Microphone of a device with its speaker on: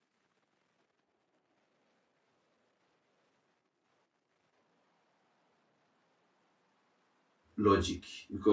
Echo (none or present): none